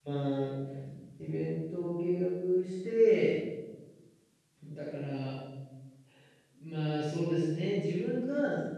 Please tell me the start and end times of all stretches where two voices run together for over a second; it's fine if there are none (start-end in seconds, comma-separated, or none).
none